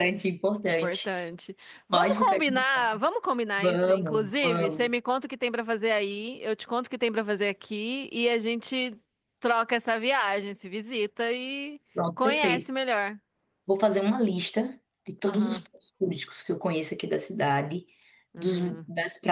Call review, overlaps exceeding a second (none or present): present